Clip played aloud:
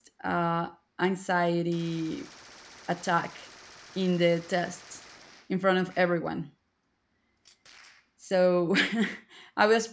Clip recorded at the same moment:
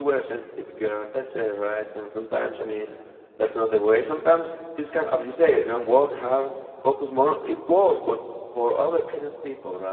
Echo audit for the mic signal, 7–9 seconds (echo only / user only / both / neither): user only